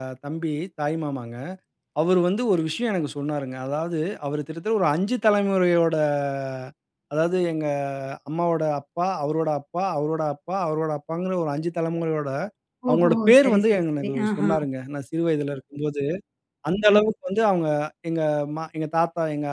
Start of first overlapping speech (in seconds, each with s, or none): 12.9 s